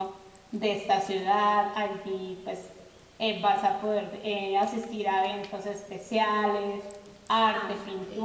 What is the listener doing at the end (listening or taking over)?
taking over